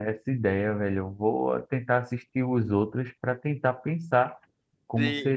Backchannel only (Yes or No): No